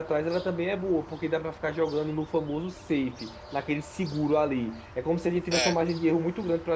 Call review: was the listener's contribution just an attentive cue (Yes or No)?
Yes